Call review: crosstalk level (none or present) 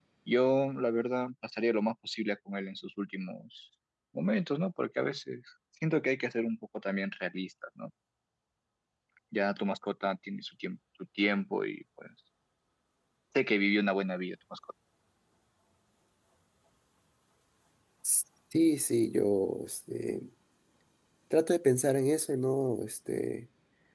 none